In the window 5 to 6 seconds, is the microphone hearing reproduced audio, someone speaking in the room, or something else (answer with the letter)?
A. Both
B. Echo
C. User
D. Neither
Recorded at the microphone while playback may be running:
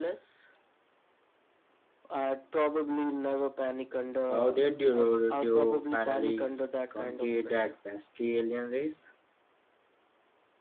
A